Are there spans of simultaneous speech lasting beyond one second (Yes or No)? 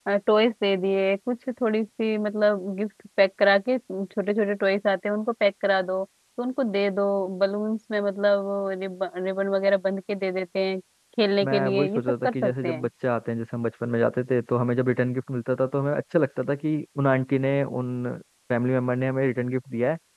Yes